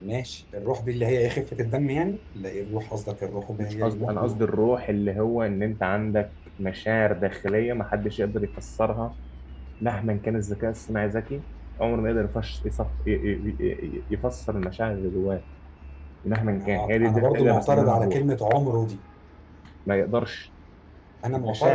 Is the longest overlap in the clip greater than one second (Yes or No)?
Yes